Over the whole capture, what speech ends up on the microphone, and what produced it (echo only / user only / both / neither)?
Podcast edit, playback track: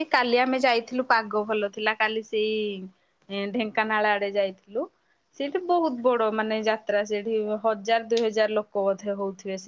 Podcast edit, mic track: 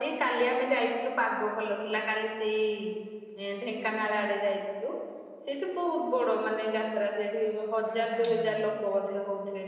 both